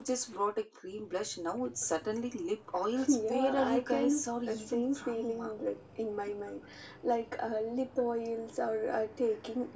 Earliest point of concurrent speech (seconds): 3.0 s

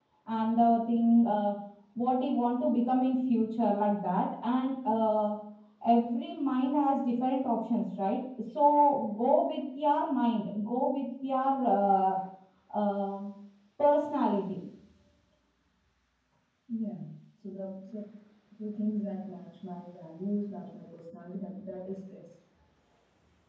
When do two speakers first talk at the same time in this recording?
none

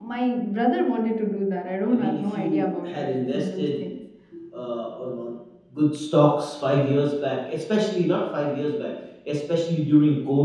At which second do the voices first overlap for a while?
1.9 s

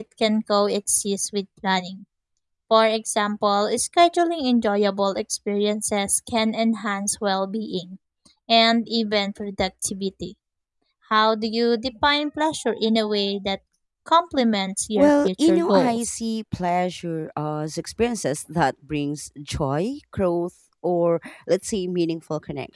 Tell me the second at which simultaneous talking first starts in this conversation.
15.0 s

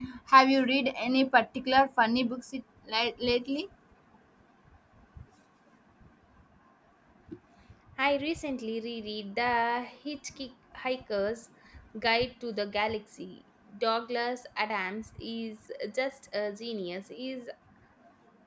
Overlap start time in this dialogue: none

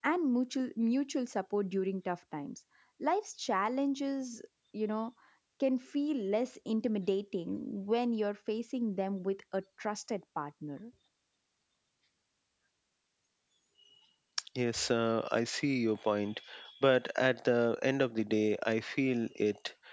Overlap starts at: none

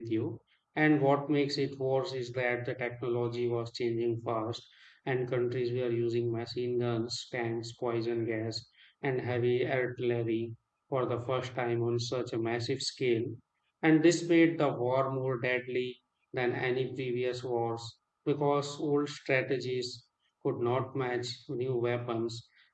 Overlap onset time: none

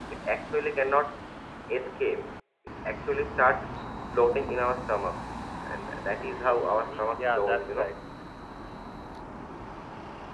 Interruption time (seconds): 6.2 s

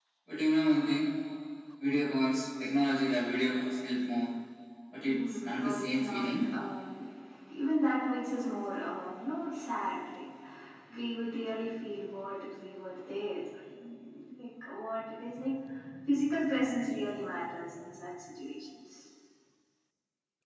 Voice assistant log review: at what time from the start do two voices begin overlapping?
5.0 s

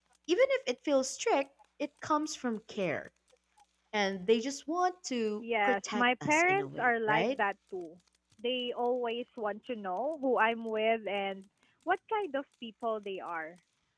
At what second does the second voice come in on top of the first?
5.4 s

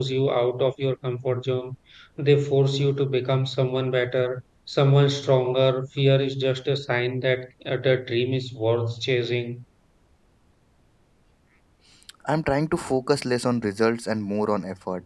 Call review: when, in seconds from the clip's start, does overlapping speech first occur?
none

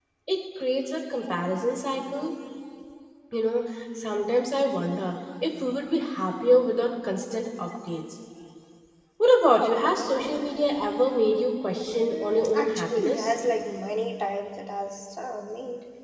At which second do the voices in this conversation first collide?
11.9 s

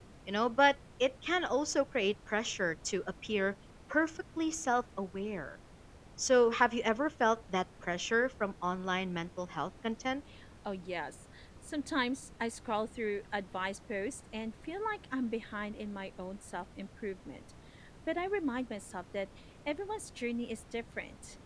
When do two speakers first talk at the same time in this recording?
none

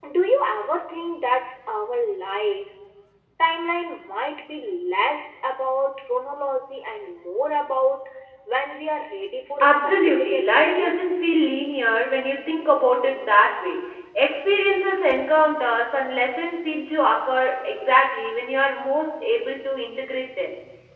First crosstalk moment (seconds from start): 9.6 s

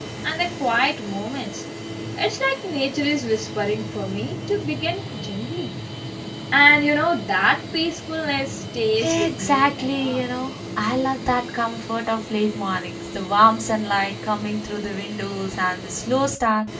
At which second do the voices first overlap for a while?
9.0 s

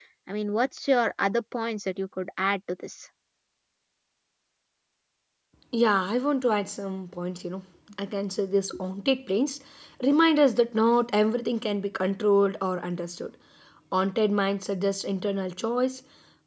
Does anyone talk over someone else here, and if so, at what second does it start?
none

